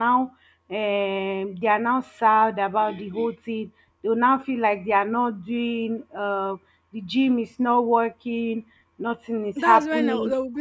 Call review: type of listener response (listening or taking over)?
taking over